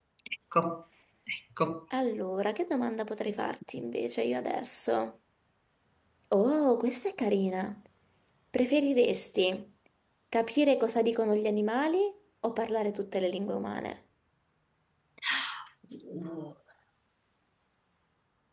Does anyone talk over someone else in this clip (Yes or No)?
No